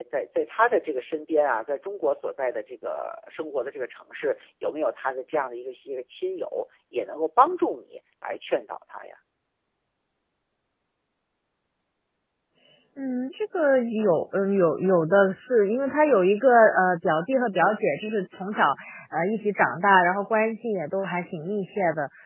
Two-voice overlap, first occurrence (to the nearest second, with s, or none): none